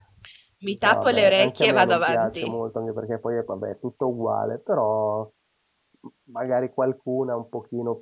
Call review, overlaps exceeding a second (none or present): present